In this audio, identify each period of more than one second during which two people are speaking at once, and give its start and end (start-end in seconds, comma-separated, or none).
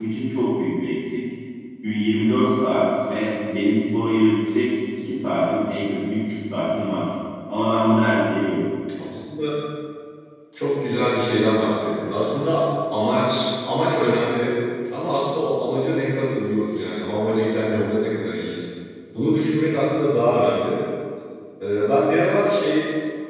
none